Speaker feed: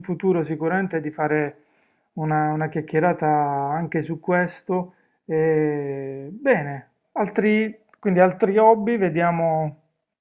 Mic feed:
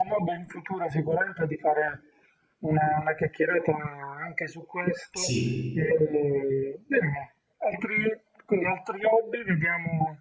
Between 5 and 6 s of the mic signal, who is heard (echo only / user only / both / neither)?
both